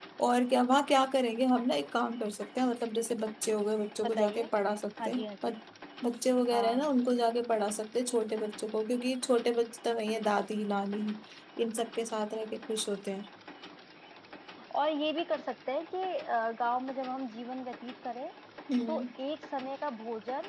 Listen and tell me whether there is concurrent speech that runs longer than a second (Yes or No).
No